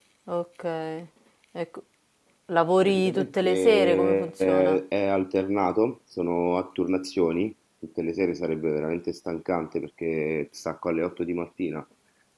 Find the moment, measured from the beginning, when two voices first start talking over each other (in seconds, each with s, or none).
2.8 s